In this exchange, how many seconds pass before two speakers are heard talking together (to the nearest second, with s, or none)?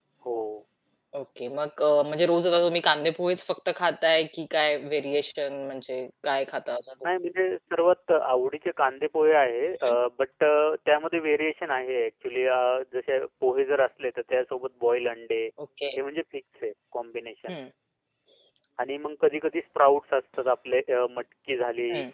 none